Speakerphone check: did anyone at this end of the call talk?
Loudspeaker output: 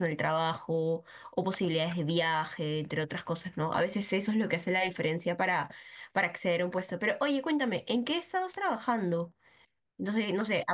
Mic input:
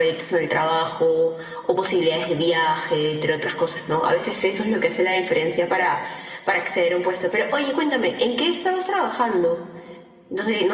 No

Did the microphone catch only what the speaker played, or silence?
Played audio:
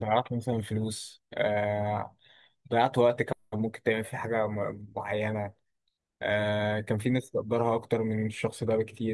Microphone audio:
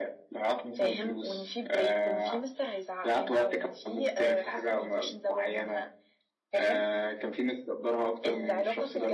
No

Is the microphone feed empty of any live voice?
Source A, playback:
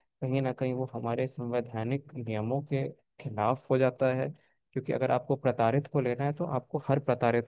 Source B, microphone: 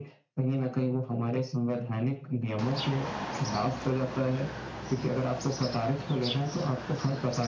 Yes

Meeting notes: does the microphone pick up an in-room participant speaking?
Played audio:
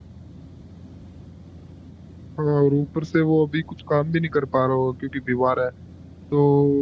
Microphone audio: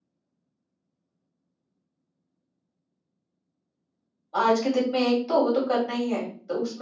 Yes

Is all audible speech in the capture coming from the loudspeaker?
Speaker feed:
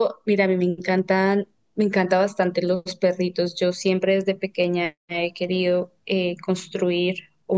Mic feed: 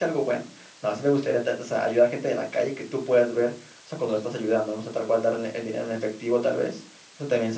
No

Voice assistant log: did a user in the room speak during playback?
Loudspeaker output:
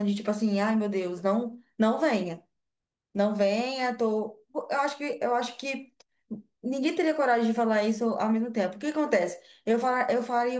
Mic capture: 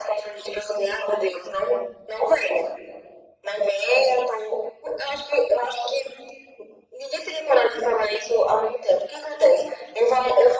No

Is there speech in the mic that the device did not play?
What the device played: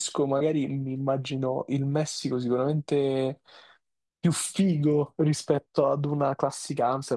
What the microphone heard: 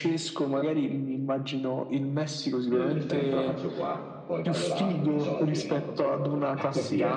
Yes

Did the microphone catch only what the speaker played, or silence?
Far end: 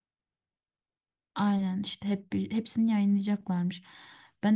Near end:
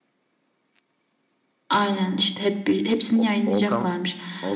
No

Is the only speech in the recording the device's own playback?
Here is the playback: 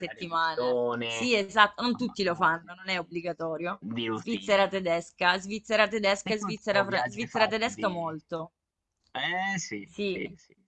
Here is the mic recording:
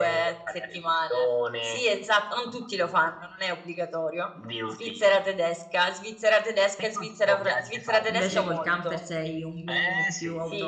No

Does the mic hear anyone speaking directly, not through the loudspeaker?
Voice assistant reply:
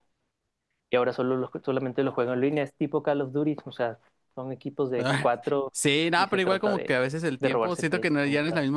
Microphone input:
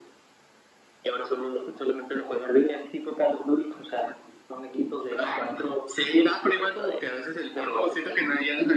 No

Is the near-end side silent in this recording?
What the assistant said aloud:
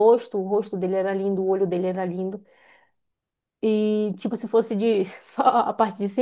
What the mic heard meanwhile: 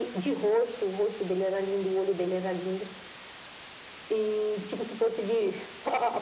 Yes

